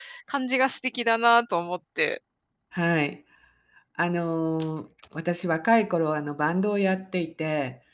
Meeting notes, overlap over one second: none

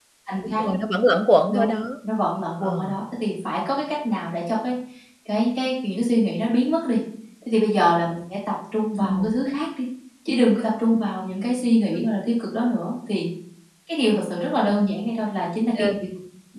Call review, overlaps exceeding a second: none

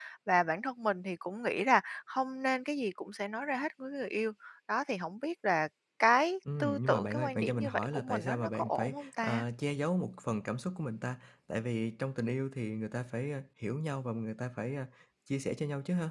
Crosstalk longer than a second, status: present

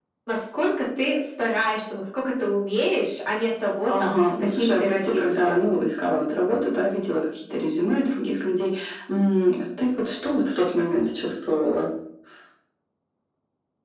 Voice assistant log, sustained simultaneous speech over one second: present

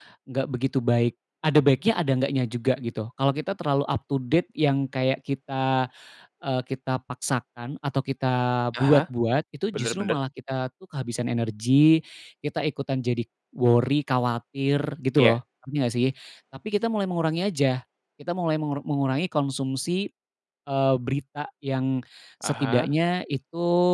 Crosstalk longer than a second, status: none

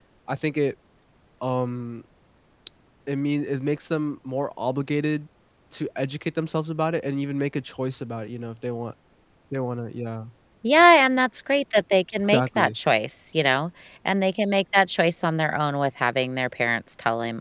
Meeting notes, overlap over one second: none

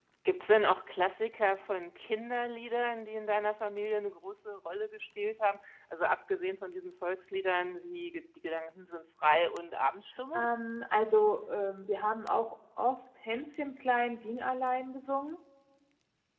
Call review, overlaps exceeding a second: none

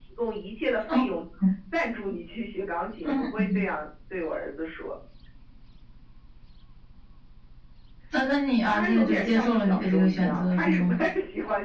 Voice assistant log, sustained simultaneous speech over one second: present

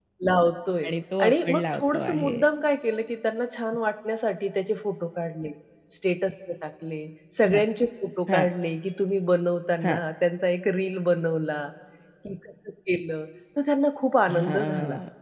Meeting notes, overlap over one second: present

